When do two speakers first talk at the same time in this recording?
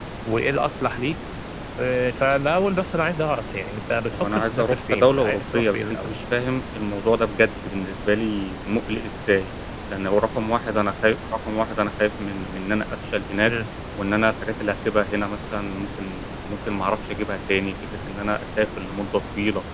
4.1 s

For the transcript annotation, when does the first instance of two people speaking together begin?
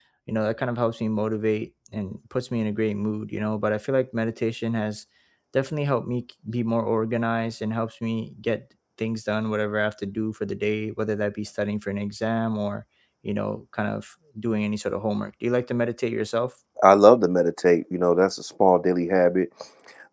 none

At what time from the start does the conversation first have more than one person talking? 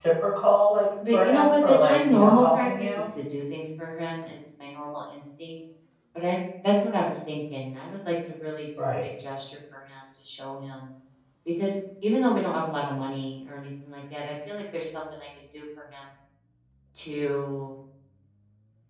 1.1 s

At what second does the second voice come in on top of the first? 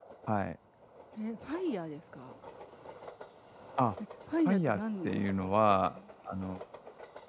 4.5 s

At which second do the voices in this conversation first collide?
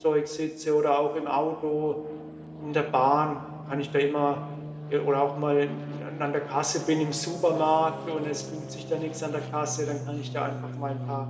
none

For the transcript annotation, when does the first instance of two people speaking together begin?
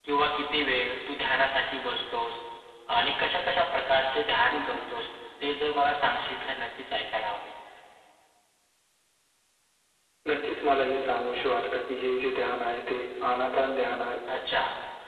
none

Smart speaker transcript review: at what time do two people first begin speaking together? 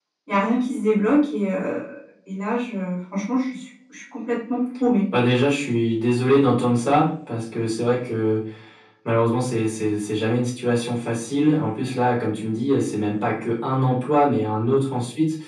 none

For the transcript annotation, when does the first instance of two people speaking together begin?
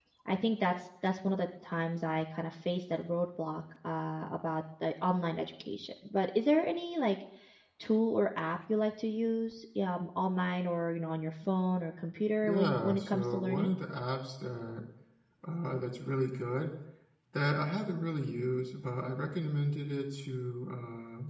12.4 s

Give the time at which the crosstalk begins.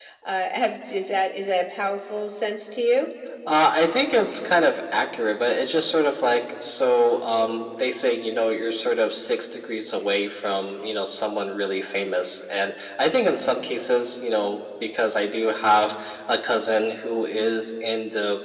none

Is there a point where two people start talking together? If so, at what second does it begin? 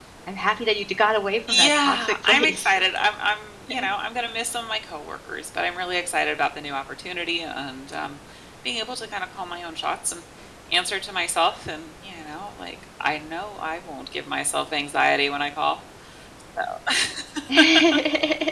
1.5 s

